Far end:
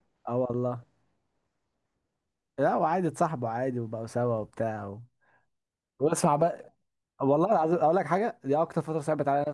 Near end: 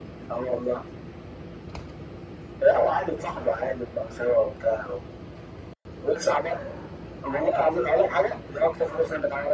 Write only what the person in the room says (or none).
none